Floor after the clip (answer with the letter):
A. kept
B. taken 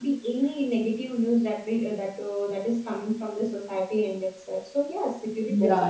A